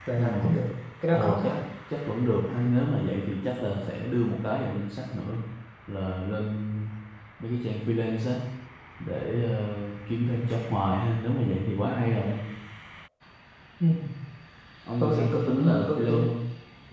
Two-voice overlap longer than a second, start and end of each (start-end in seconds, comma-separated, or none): 15.0-16.3